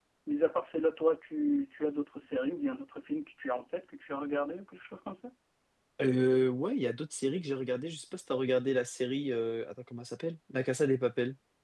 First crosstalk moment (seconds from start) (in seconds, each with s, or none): none